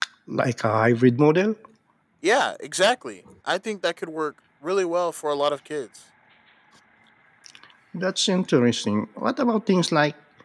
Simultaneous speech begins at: none

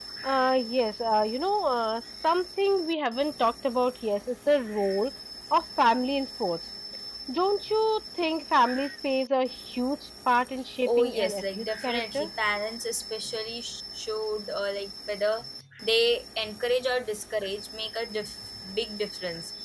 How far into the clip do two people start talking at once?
10.8 s

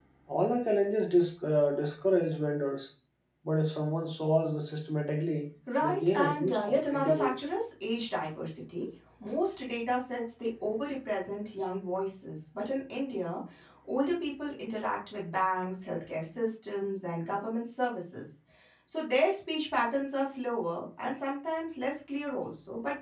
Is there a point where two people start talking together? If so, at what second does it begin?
5.7 s

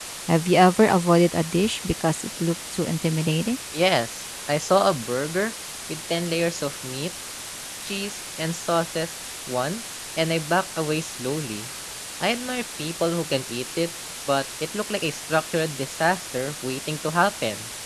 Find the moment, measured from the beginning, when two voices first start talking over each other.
none

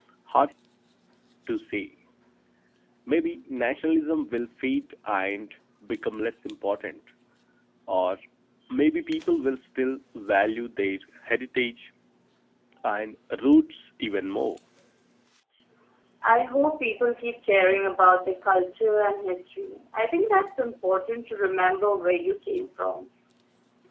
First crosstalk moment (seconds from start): none

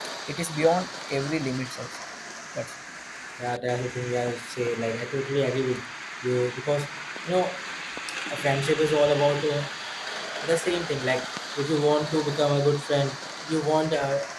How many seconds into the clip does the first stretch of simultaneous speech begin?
none

